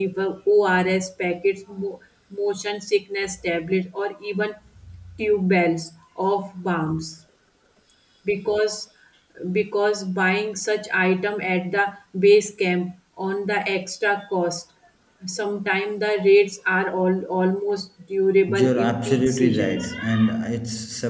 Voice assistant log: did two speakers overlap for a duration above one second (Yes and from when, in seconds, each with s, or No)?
Yes, from 18.5 s